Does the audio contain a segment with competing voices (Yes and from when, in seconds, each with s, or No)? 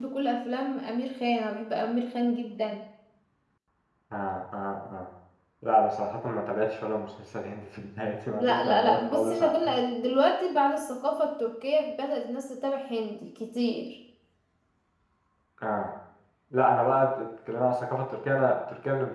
Yes, from 8.3 s